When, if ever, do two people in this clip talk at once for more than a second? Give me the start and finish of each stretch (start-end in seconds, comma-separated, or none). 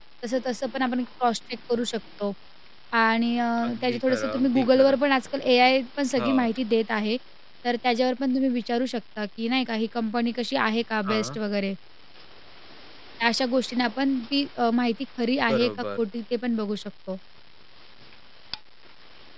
3.7-5.0